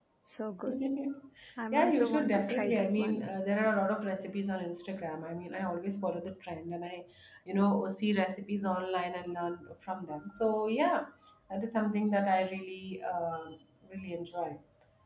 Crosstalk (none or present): present